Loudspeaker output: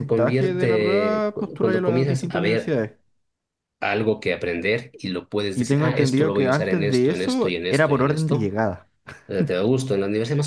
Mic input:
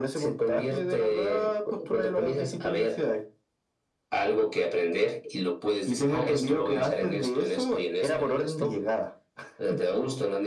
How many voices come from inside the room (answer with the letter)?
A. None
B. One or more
A